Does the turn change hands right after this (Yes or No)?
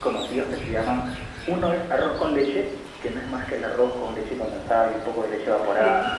Yes